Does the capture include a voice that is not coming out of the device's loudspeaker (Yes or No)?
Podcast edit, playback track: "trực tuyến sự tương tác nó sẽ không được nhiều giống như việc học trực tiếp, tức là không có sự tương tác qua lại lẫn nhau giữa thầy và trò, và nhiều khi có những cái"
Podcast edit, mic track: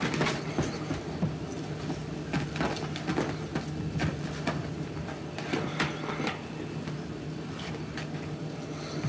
No